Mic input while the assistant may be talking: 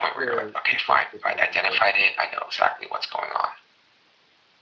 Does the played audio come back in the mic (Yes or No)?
Yes